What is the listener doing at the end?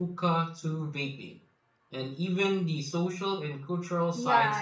taking over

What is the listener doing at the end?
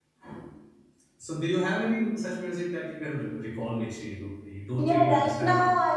taking over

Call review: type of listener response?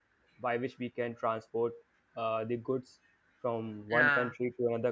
listening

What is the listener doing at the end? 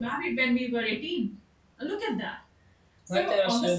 taking over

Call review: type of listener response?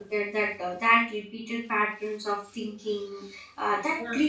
listening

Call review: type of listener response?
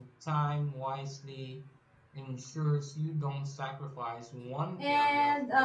taking over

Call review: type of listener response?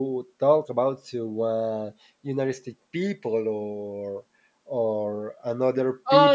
listening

